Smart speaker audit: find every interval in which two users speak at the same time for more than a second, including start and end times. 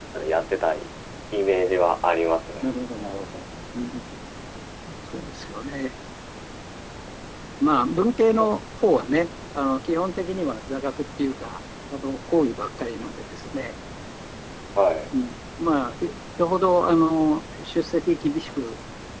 none

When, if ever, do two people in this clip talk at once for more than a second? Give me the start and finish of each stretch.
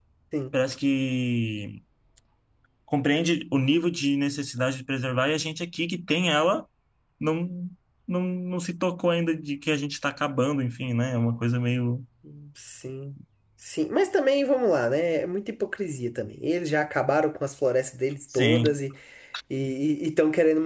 none

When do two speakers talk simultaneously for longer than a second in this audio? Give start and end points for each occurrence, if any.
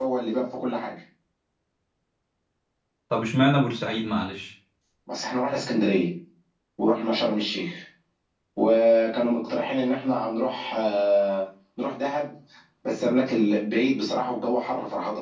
none

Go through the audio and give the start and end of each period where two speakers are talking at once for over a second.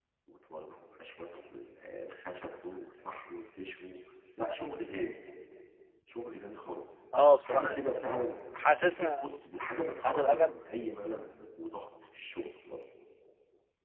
none

